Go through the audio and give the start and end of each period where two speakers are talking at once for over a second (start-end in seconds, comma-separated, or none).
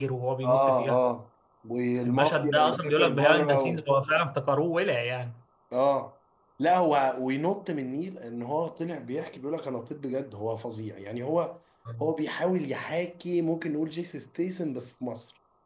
2.0-3.8